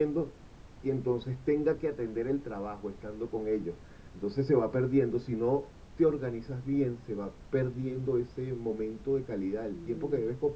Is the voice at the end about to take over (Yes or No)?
No